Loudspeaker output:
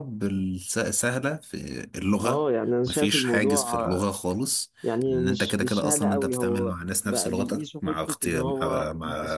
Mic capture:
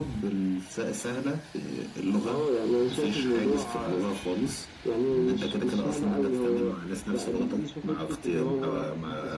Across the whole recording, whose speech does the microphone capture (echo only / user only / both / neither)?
echo only